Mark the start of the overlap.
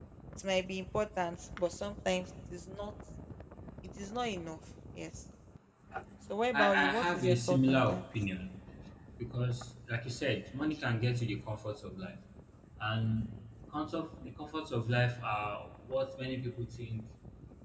7 s

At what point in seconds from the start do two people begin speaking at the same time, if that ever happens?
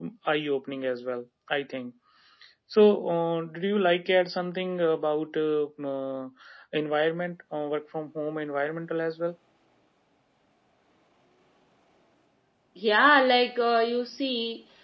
none

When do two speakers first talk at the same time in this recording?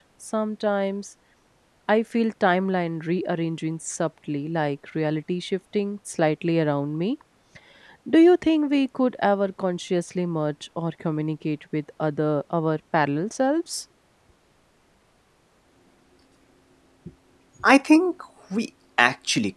none

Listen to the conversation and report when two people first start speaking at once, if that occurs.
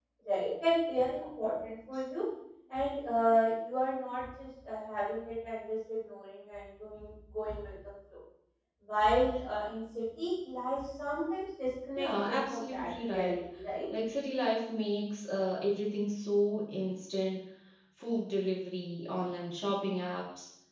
12 s

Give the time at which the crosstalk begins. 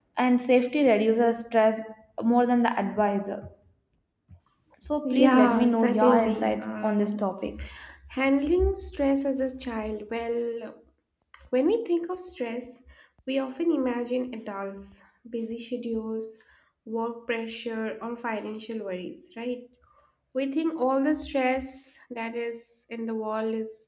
5 s

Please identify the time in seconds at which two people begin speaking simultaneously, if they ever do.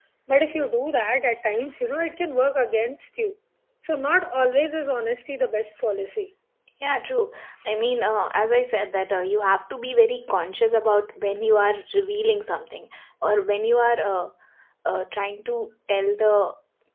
none

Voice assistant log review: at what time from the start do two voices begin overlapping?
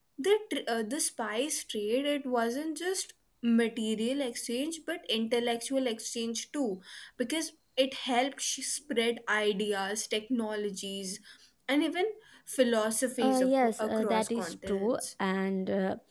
13 s

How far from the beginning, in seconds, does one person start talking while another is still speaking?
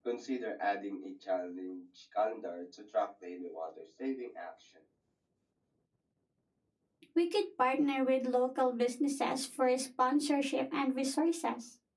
none

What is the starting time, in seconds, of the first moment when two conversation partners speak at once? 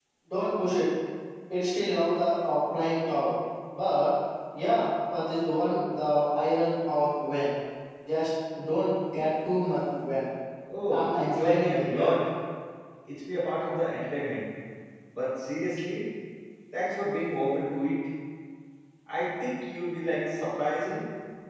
11 s

